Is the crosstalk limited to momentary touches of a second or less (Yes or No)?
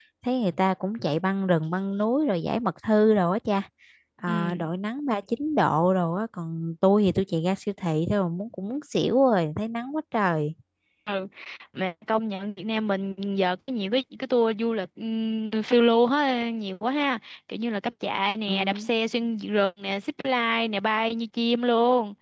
Yes